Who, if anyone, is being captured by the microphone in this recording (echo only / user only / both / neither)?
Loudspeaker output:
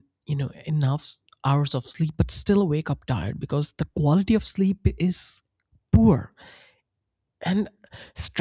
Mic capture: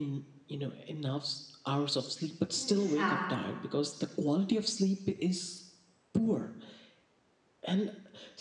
both